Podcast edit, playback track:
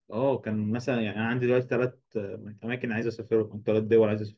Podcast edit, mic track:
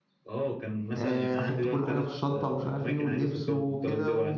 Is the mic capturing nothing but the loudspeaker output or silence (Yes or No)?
No